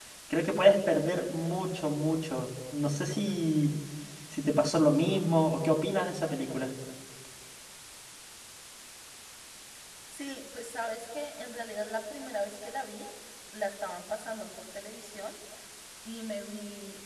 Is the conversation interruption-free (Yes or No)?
Yes